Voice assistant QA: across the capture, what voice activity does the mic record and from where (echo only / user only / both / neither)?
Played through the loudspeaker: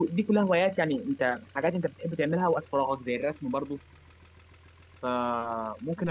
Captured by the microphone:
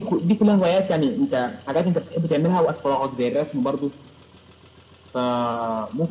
echo only